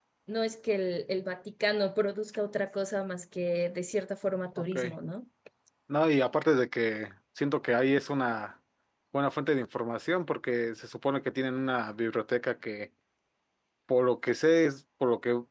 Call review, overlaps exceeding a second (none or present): none